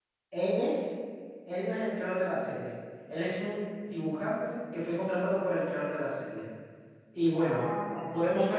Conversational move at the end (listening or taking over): listening